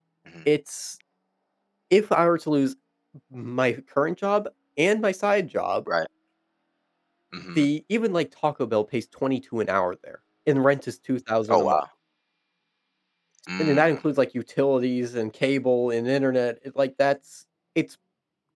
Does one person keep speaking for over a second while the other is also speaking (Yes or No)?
No